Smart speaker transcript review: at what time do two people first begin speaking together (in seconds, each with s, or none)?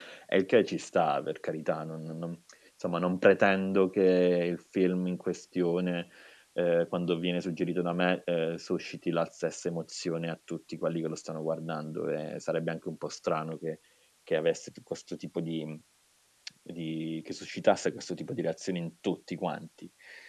none